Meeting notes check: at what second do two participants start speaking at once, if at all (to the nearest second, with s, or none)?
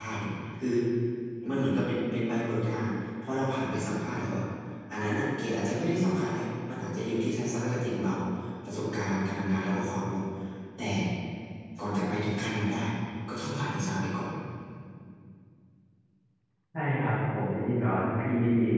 none